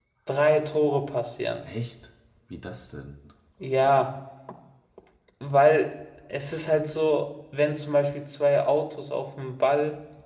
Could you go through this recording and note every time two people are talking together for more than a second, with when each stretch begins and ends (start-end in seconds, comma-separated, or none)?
none